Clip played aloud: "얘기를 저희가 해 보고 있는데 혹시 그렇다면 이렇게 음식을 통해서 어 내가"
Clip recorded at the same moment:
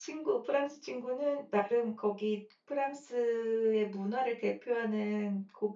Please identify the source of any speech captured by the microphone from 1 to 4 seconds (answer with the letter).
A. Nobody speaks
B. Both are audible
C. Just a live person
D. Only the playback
C